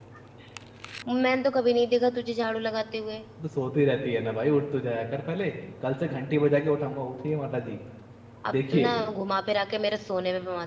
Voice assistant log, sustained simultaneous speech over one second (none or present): none